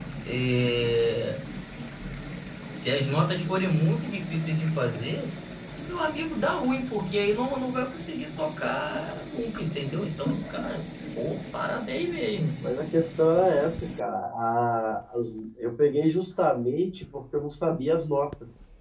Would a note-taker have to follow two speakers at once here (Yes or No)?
No